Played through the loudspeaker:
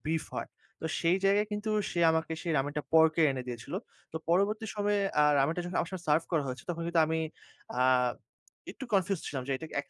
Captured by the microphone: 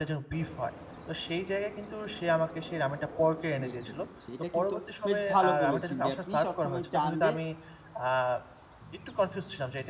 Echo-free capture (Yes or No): No